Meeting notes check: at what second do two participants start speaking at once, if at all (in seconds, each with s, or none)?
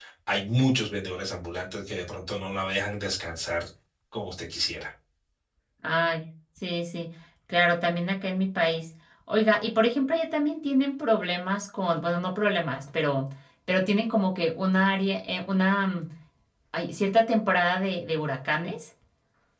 none